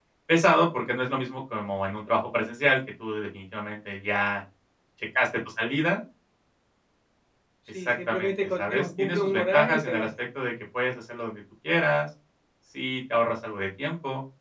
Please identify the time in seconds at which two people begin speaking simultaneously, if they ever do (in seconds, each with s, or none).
7.7 s